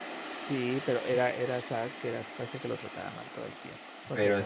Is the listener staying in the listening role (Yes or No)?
No